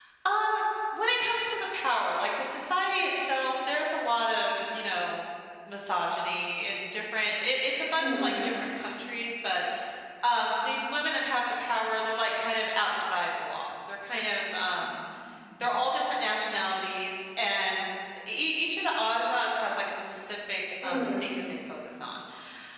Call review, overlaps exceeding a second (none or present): none